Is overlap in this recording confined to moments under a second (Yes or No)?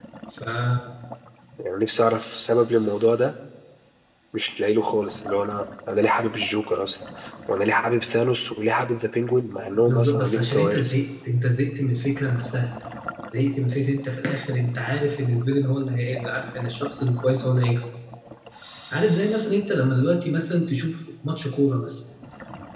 No